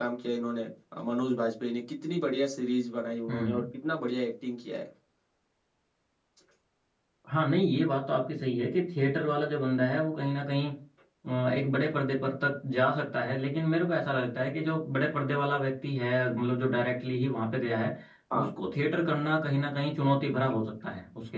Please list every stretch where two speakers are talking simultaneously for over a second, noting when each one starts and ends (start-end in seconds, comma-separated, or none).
none